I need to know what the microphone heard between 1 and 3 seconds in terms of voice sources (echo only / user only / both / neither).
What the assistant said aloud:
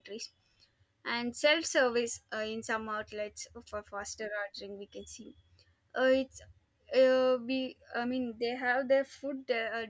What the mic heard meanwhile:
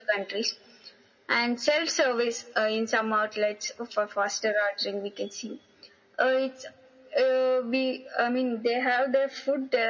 echo only